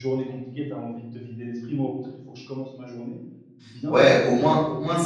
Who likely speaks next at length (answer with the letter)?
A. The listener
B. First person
A